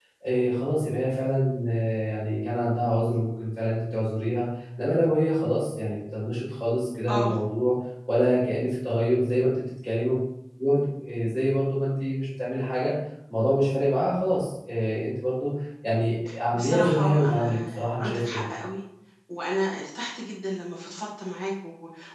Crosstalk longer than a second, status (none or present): present